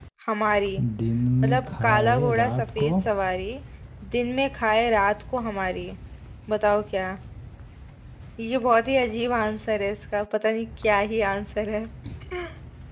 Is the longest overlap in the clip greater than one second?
Yes, from 1.4 s

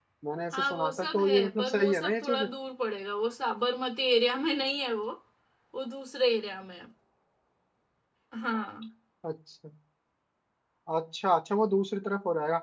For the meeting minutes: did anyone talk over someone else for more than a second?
Yes, from 0.5 s

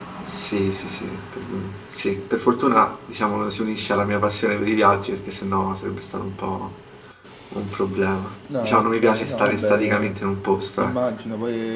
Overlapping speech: Yes, from 8.6 s

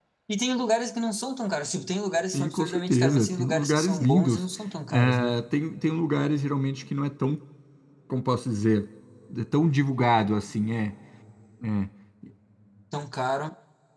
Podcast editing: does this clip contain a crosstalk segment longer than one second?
Yes, from 2.3 s

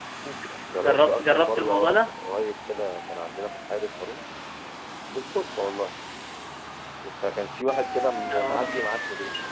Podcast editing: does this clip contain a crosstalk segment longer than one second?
Yes, from 0.8 s

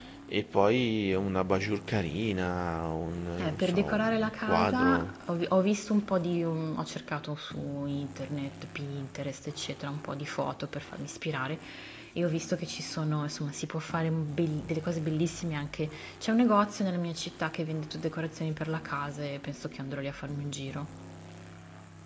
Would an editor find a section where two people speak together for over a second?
Yes, from 3.3 s

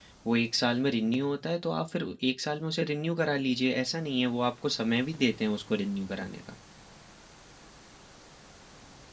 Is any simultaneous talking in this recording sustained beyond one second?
No

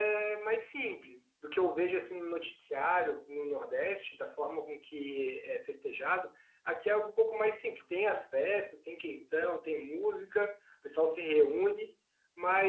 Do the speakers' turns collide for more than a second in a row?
No

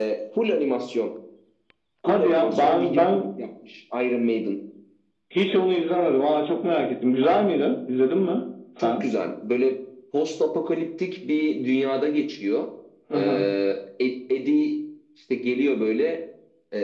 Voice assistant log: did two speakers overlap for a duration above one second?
Yes, from 2.1 s

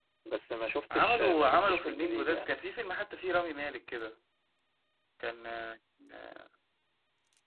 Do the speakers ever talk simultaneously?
Yes, from 0.9 s

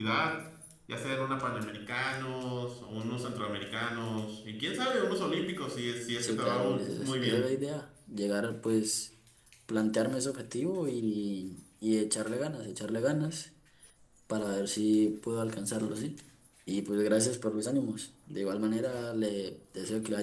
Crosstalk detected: Yes, from 6.2 s

